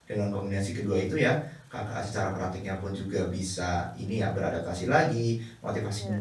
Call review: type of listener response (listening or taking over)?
listening